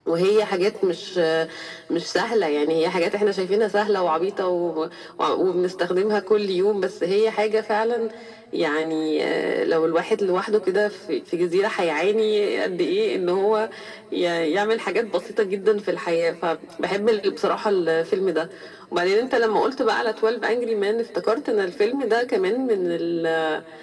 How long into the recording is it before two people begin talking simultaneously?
none

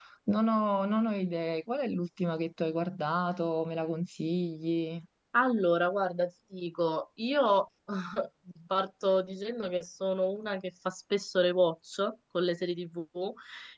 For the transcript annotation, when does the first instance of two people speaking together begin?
none

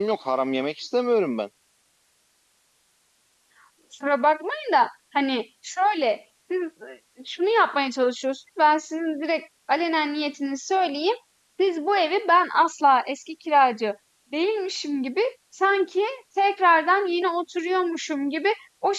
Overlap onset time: none

